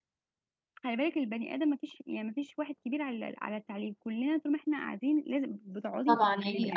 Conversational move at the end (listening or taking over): taking over